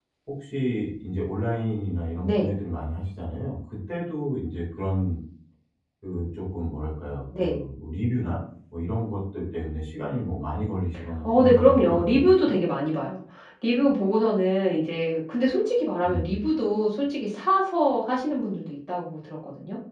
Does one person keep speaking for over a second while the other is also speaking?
Yes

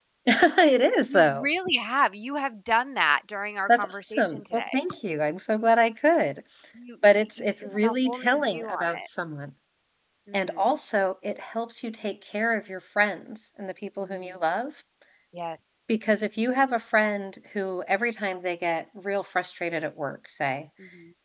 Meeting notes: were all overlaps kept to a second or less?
No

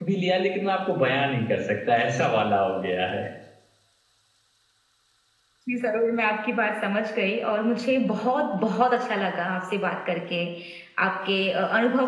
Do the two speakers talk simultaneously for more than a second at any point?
No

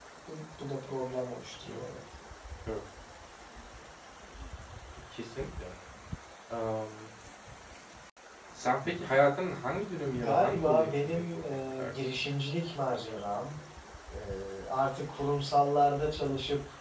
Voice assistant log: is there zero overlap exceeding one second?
No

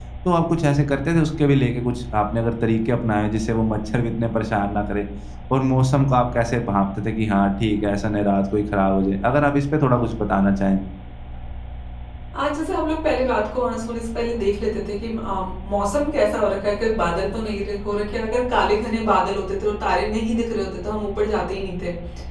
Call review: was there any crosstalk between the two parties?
No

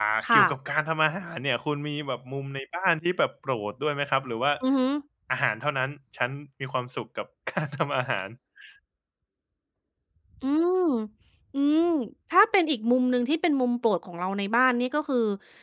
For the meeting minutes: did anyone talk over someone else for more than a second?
No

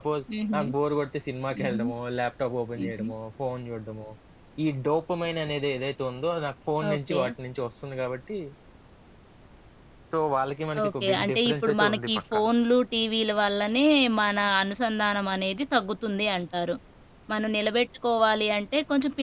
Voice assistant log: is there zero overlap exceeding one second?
No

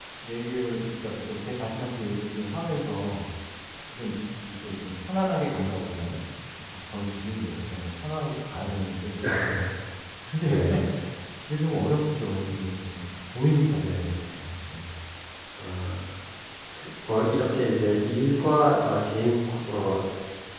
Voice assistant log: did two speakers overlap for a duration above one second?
No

